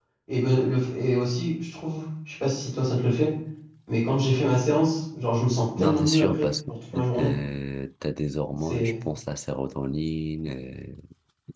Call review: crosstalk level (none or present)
present